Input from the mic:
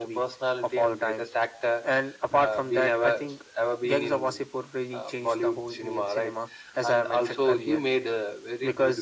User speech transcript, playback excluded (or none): none